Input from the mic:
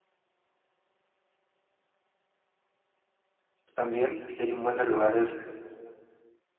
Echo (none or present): none